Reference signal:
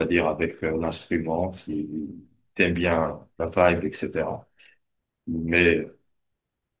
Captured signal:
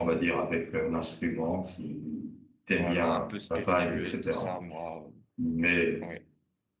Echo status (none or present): present